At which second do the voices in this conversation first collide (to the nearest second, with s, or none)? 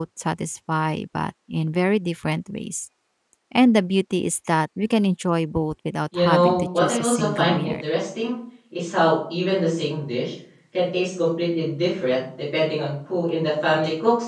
6 s